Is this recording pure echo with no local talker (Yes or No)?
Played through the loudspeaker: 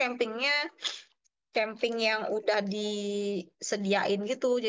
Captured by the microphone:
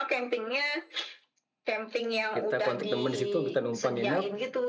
No